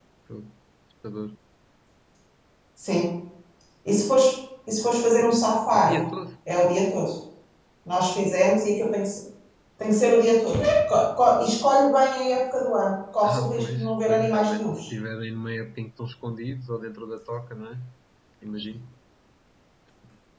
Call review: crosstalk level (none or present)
present